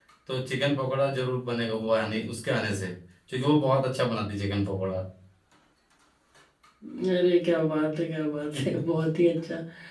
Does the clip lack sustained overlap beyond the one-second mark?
Yes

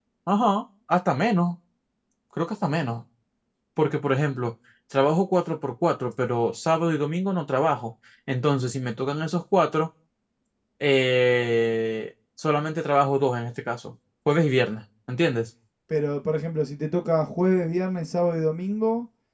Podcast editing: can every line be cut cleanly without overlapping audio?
Yes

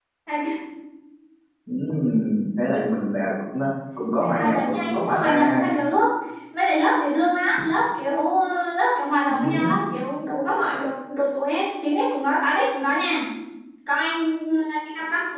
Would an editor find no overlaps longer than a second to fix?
No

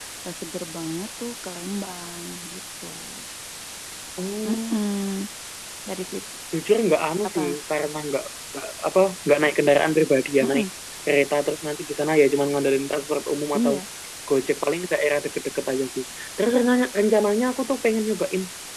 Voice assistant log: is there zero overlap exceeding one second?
Yes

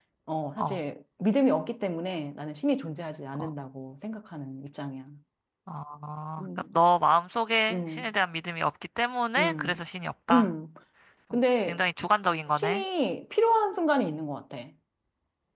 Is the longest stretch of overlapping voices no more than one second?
Yes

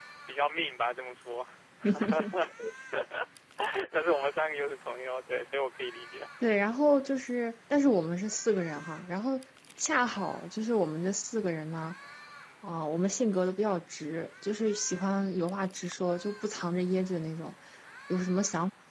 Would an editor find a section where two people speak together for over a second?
No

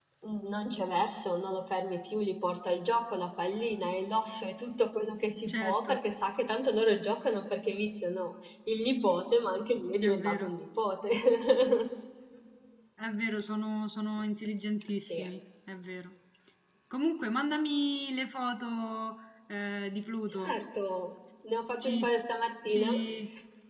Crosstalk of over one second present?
No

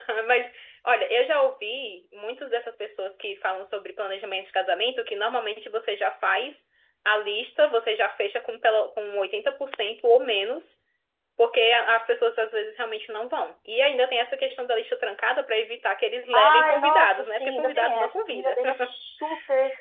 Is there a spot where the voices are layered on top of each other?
Yes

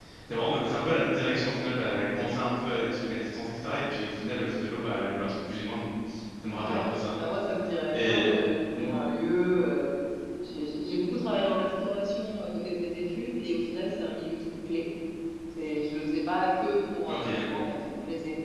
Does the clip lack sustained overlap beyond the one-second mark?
Yes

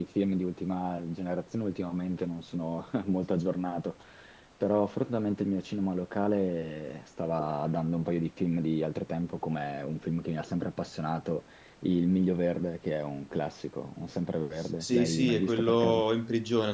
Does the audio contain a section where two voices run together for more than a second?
Yes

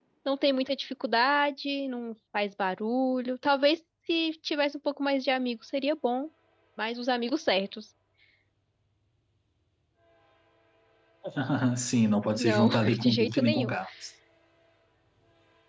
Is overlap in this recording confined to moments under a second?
No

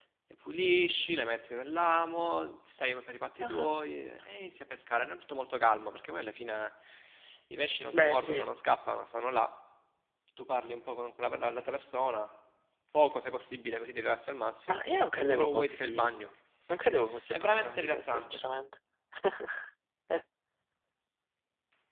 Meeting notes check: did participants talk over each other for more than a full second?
Yes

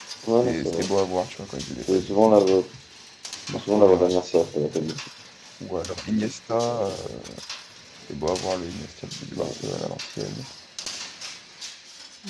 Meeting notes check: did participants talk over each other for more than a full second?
Yes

